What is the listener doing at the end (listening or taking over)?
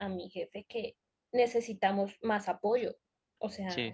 listening